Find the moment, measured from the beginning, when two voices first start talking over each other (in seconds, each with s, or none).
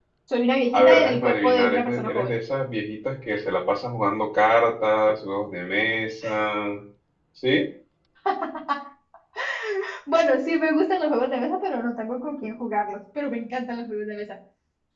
0.7 s